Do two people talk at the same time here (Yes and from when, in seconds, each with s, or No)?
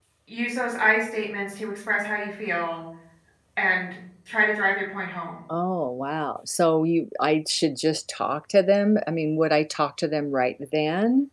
No